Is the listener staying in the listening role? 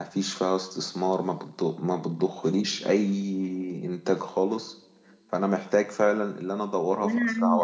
No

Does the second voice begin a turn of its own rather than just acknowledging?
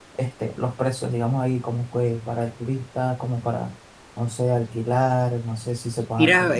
Yes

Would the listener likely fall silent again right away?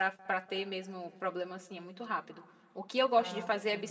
Yes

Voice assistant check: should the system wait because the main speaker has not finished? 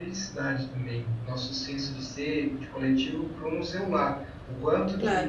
Yes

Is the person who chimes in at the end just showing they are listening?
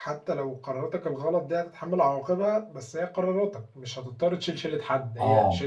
No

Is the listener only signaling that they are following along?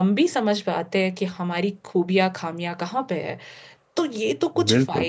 Yes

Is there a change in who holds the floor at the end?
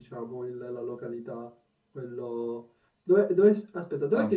No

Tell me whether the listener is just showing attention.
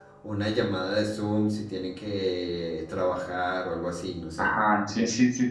No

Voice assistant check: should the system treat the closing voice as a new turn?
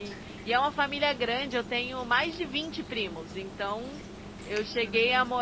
No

